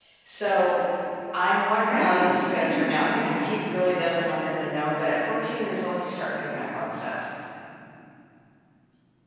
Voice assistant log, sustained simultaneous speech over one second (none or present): present